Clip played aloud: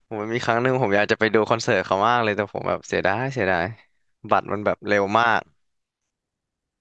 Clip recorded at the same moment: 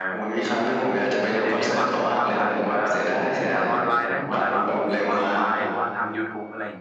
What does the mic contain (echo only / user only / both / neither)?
both